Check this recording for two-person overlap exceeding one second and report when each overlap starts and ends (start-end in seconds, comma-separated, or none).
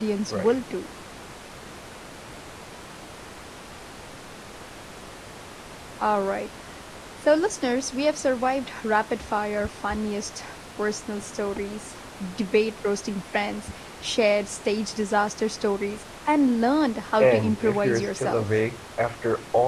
17.2-18.4